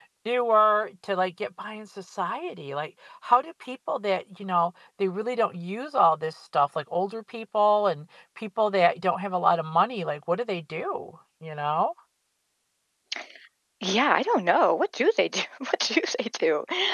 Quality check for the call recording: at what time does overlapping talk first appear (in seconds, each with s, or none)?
none